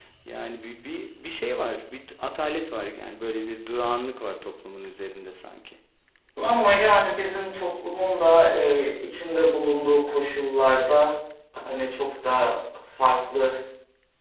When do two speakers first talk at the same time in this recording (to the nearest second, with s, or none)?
none